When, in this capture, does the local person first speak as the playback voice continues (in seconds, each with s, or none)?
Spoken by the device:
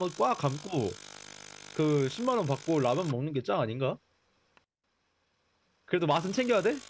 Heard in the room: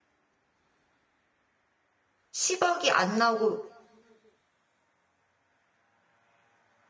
2.3 s